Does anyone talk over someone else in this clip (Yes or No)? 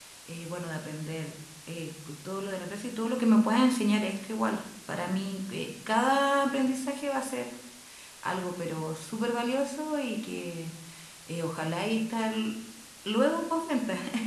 No